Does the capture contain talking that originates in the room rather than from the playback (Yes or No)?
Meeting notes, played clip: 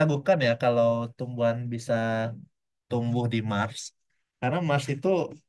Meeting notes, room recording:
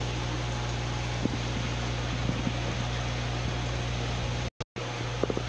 No